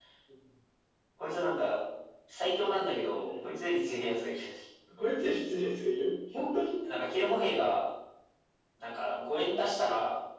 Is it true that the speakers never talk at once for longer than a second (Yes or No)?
Yes